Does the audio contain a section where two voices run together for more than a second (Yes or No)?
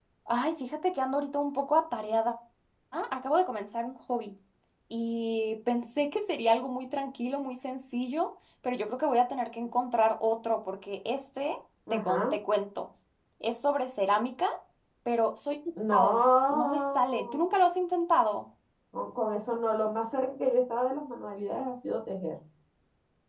Yes